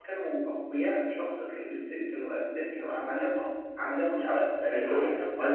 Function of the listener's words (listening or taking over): taking over